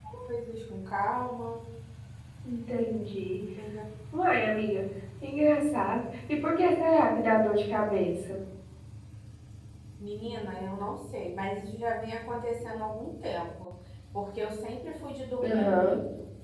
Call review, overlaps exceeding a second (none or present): none